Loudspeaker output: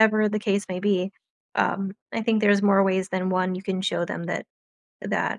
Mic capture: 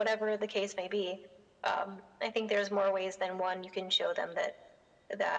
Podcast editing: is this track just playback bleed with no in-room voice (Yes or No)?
Yes